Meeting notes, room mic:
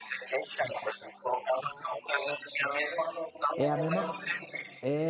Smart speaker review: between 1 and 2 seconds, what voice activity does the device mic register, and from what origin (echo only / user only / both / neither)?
echo only